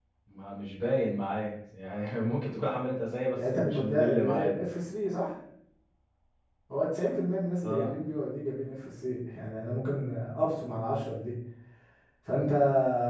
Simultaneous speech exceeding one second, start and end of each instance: 3.4-4.6

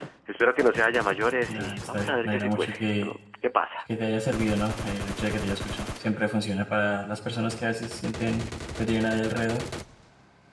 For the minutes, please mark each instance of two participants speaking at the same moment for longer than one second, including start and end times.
1.5-3.1

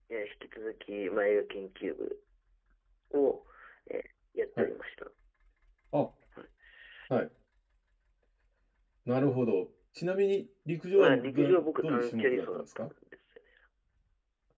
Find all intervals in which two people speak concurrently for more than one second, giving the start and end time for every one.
10.9-12.9

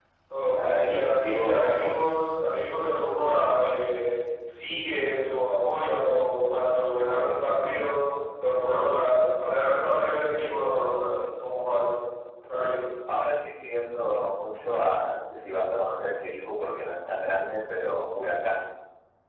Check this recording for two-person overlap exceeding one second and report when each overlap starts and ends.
0.5-2.1

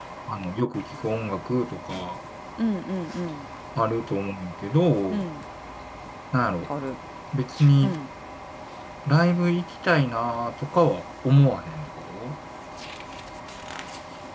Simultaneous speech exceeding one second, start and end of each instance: none

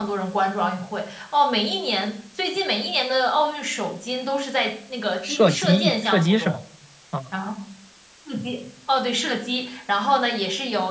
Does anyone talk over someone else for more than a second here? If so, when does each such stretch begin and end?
5.2-6.6

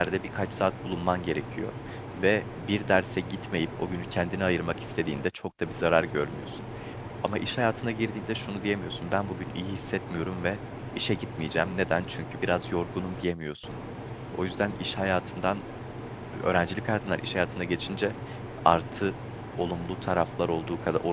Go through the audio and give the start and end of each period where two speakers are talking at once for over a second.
none

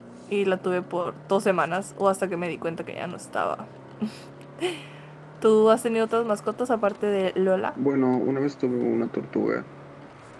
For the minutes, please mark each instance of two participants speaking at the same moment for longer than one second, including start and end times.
none

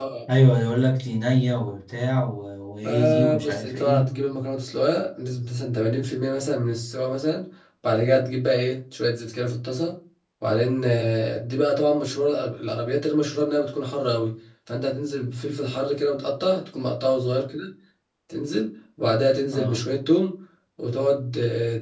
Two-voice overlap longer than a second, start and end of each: 2.8-4.1

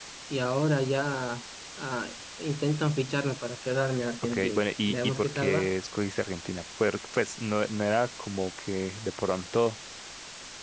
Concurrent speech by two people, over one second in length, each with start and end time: 4.2-5.7

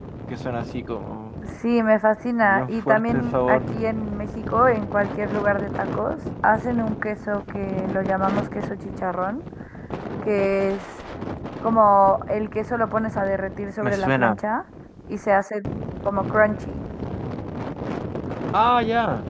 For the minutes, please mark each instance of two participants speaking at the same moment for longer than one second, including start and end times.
2.4-3.6

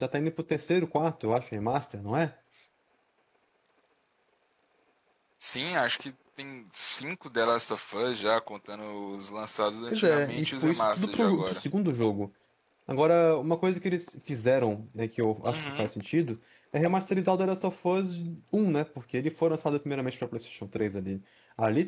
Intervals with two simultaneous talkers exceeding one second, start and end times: 9.9-11.6

